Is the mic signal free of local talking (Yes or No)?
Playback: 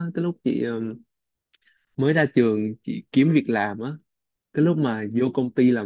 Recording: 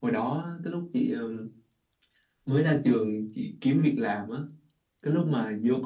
Yes